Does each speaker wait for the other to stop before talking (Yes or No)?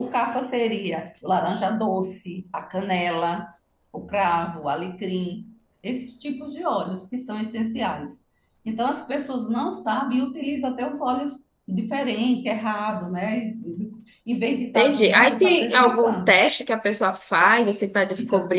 No